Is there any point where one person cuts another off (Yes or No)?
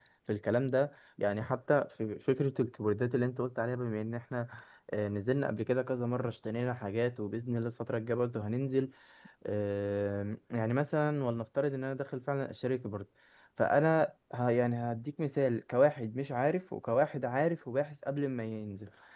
No